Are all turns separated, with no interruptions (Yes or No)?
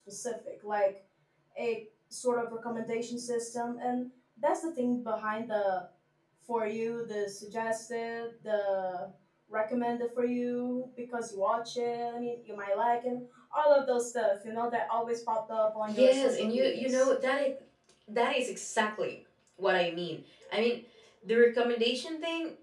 No